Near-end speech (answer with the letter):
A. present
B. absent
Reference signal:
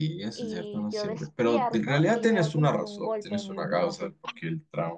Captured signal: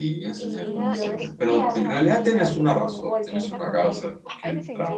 A